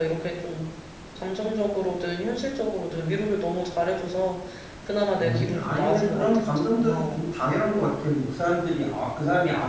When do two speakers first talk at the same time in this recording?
5.2 s

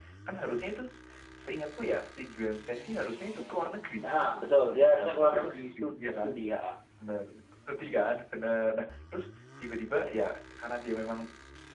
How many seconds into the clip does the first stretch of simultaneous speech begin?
5.0 s

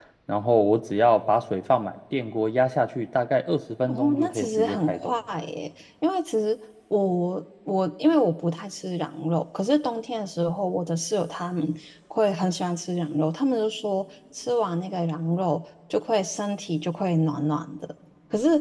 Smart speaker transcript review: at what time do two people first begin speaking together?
3.9 s

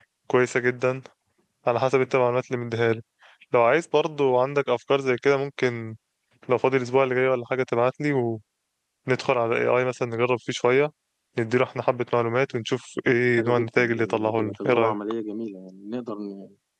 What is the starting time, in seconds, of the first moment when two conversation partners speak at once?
13.4 s

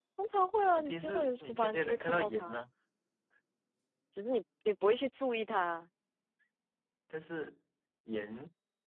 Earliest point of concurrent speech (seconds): 0.7 s

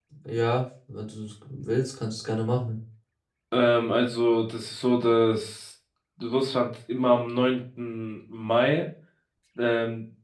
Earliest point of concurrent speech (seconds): none

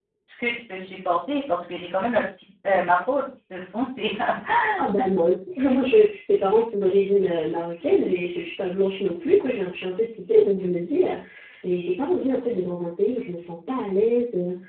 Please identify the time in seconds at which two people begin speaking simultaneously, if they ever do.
none

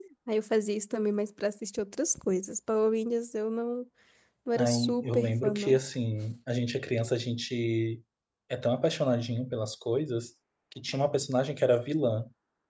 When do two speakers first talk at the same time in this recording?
4.5 s

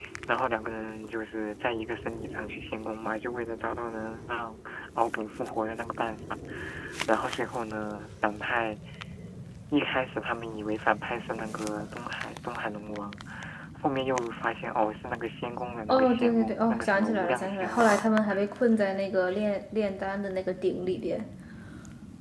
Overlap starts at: 15.9 s

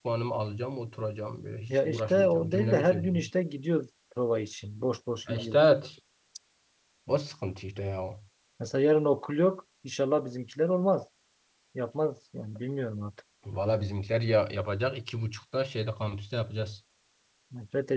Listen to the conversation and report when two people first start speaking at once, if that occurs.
1.7 s

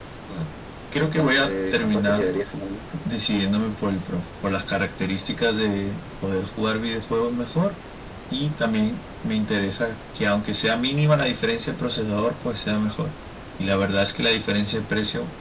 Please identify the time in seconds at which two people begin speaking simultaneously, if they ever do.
1.0 s

